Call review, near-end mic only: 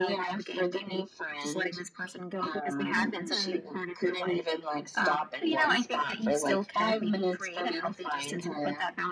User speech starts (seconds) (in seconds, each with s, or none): 3.1 s